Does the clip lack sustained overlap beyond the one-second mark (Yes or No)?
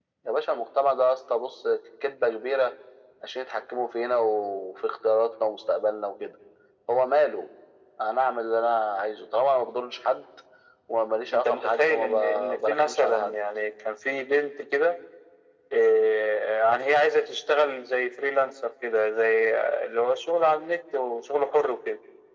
No